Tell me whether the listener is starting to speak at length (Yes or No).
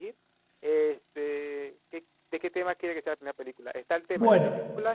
No